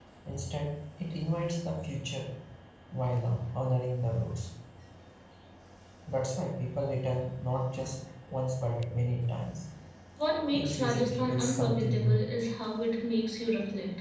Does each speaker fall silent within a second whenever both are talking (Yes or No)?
No